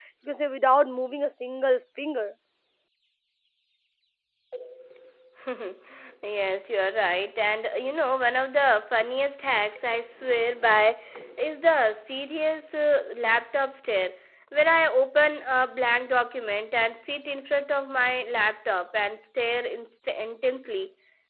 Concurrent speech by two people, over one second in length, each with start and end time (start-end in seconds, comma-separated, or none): none